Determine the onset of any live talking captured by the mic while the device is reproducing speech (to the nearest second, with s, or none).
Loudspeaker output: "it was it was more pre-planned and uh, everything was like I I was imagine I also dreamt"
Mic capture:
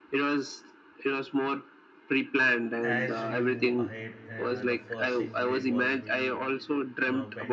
3 s